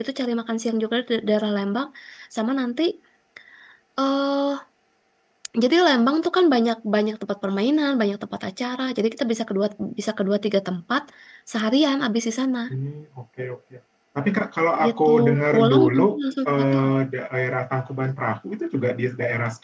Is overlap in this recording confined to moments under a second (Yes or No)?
No